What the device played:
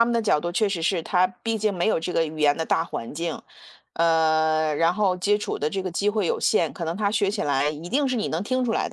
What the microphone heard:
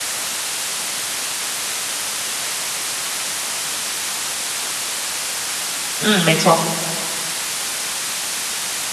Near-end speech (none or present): present